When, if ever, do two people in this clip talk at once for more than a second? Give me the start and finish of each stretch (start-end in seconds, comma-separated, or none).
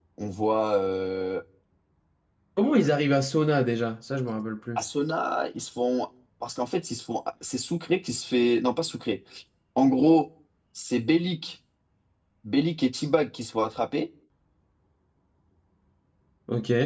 none